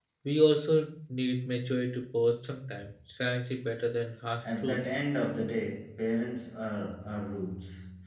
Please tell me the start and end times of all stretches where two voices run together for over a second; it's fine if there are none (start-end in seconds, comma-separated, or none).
none